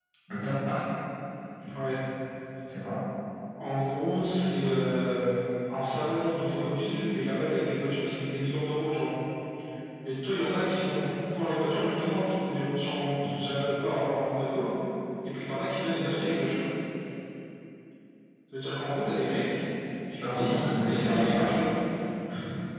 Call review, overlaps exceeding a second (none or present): present